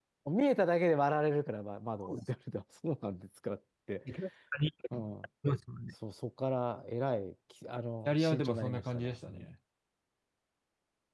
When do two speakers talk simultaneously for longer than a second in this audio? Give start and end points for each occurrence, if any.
8.1-9.5

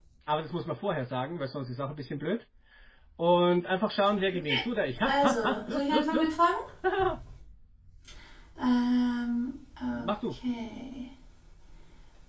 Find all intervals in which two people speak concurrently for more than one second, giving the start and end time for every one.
5.0-6.3

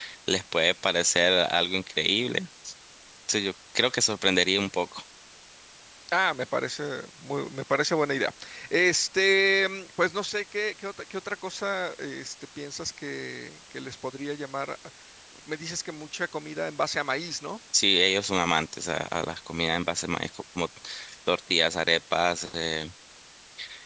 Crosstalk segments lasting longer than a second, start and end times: none

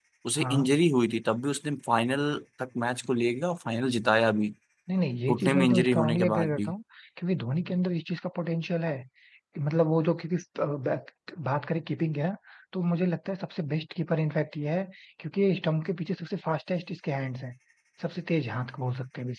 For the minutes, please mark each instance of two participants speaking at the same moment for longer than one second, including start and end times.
5.3-6.7

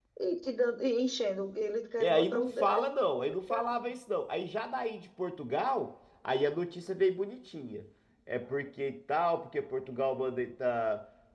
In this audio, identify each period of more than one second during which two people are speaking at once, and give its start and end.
2.0-3.9

